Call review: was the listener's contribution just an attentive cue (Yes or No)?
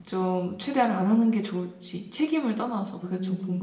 No